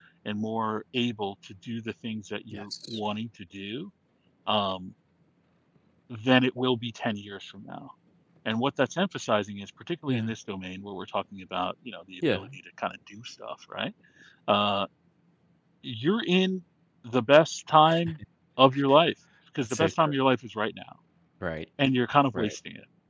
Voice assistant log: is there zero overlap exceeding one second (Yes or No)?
Yes